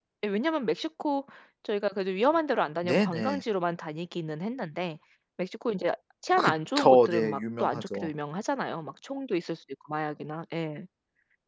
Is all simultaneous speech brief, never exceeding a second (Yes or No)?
No